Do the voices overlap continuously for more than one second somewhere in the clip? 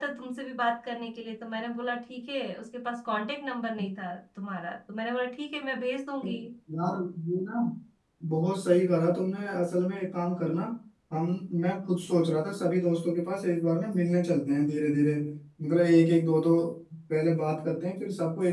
No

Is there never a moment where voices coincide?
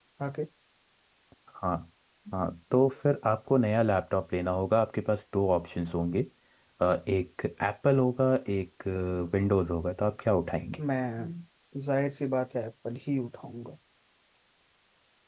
Yes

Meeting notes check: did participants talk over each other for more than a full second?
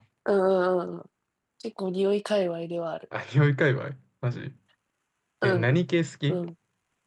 No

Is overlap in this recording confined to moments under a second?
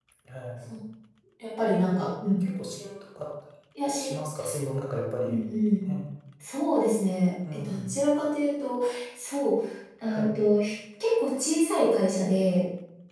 Yes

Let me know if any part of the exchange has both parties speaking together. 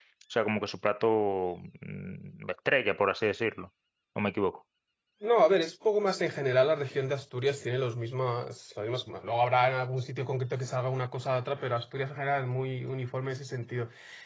No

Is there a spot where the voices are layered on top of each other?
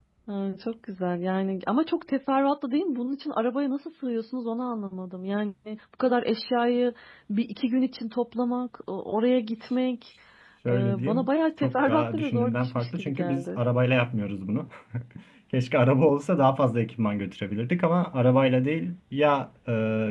Yes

